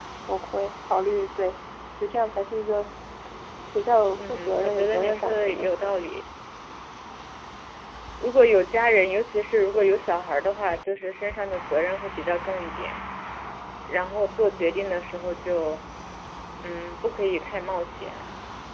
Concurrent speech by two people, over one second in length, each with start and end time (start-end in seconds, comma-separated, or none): 4.2-6.0